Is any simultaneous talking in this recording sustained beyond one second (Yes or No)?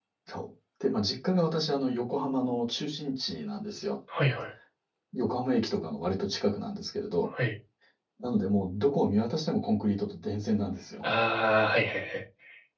No